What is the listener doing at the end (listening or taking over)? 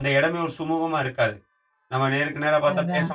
listening